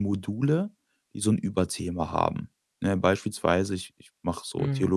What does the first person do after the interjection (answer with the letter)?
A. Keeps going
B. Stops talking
A